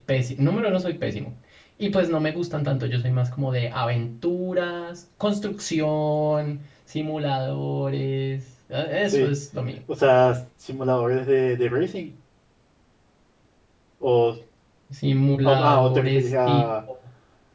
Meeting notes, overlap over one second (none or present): present